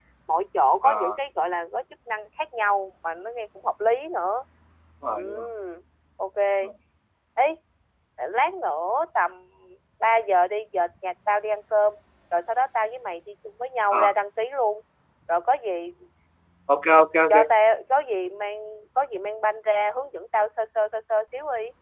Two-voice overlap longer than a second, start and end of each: none

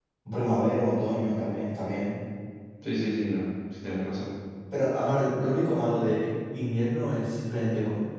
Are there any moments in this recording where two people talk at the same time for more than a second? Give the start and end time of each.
none

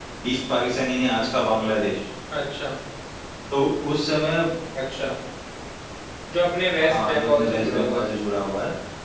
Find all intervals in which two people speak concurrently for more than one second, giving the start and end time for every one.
6.8-8.1

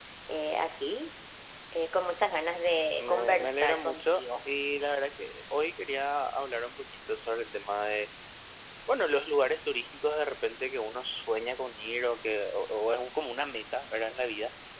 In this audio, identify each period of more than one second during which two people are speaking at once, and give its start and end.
3.0-4.2

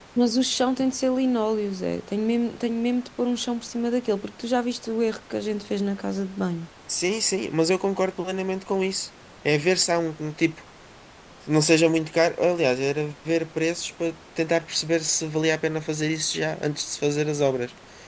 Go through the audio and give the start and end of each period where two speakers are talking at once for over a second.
none

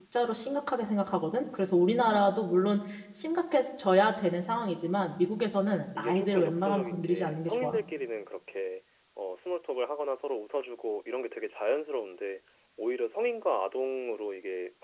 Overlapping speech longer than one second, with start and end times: 6.0-7.8

